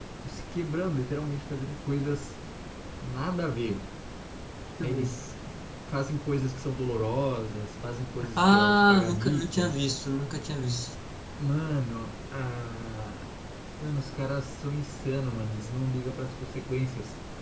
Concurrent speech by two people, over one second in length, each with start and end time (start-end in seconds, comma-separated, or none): 8.4-9.6